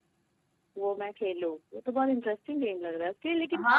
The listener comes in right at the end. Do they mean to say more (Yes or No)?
Yes